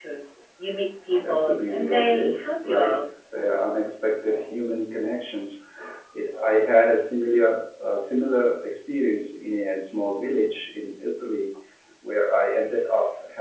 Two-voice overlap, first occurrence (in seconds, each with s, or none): 1.2 s